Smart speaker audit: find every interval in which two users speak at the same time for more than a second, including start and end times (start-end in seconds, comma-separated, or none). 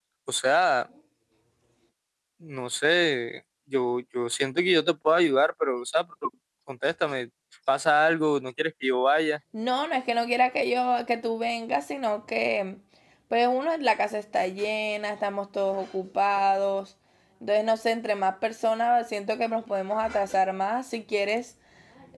none